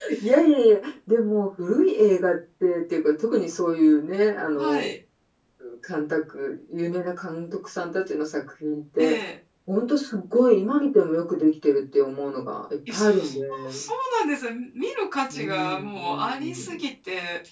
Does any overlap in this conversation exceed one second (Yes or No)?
Yes